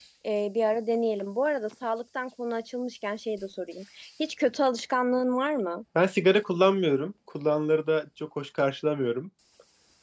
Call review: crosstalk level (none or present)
none